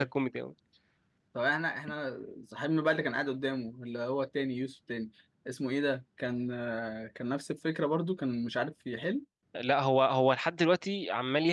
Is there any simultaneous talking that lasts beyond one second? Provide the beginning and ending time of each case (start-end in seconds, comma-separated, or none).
none